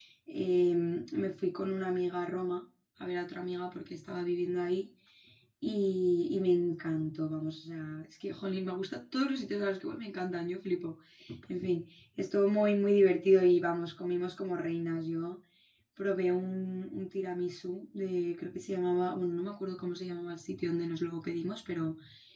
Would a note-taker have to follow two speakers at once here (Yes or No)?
No